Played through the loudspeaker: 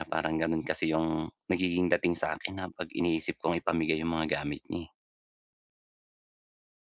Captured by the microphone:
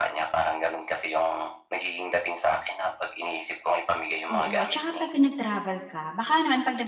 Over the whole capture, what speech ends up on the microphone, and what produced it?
both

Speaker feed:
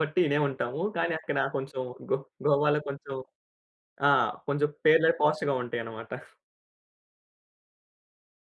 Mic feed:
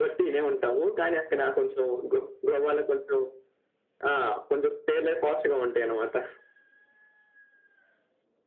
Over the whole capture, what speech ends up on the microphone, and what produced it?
echo only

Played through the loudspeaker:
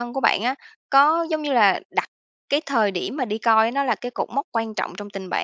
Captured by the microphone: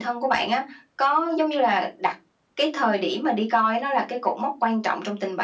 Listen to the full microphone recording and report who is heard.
echo only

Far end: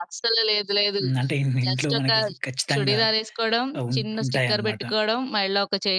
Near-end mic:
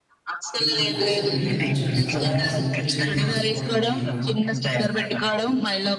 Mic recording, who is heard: both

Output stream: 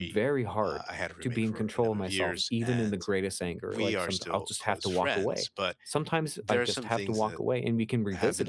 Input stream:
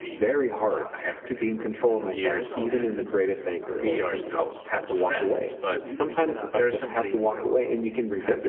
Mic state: both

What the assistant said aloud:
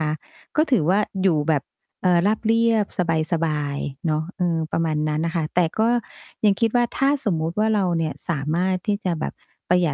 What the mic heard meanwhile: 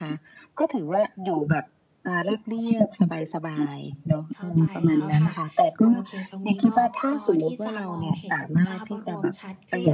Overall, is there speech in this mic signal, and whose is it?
both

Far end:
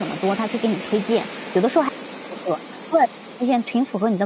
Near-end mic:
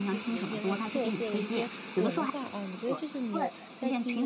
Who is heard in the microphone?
both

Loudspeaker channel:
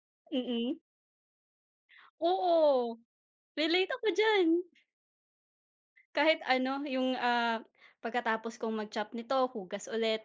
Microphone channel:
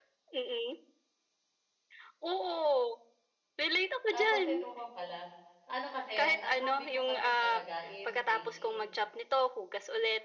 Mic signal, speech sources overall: both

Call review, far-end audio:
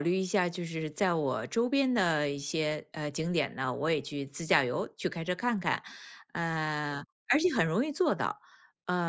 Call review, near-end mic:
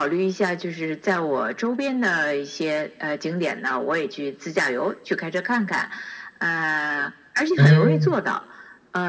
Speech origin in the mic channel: both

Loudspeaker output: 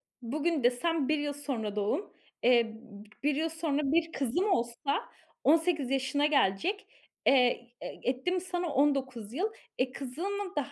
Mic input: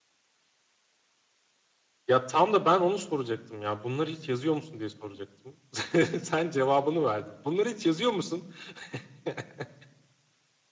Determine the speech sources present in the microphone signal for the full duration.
user only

